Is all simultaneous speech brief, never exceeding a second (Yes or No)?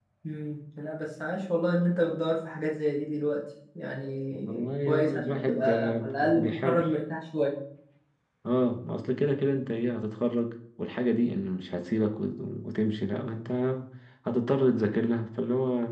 No